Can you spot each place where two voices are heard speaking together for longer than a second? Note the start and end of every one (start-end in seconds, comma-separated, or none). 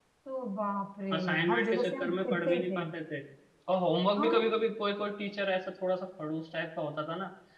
1.1-2.8